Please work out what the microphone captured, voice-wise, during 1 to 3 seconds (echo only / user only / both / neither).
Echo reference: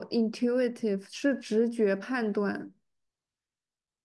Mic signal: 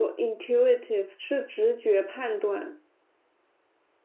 echo only